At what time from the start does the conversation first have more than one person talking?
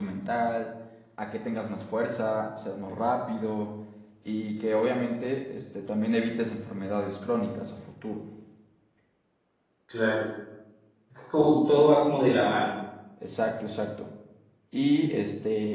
none

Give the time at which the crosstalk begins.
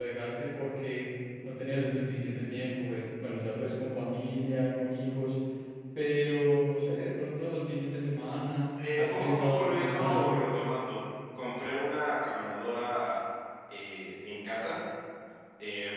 8.8 s

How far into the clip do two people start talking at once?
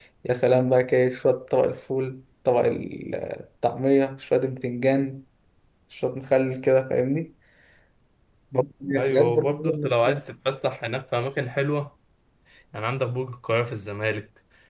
8.9 s

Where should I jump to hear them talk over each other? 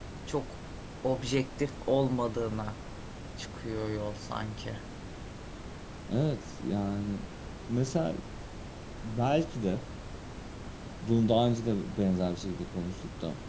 none

